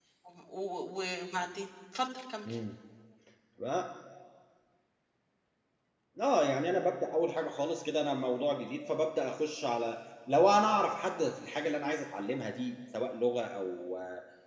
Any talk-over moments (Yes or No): No